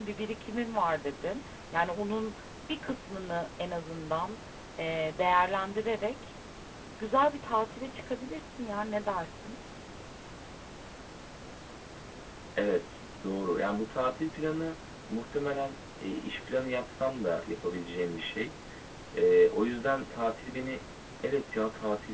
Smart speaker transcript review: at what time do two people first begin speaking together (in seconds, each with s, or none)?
none